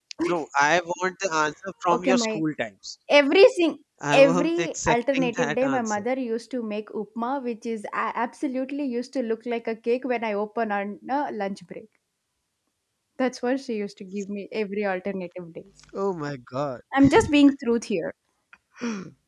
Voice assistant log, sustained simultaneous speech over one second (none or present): present